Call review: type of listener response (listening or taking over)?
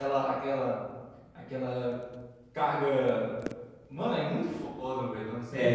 taking over